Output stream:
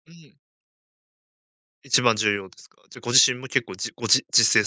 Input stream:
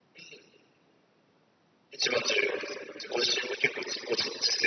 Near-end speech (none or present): none